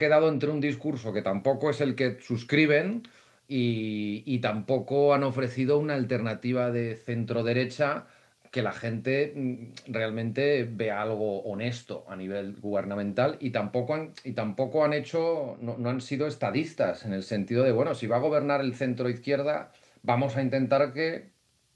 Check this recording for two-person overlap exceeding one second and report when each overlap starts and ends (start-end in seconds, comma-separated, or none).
none